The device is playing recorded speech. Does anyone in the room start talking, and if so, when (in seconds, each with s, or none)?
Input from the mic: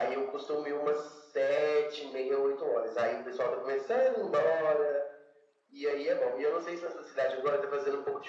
none